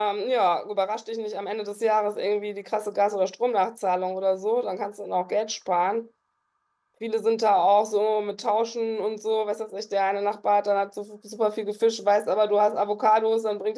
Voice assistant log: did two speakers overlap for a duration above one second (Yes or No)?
No